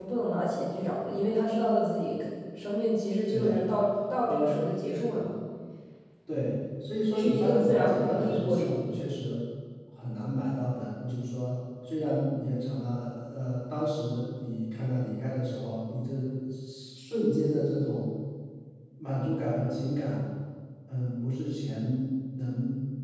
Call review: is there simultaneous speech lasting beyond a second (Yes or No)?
Yes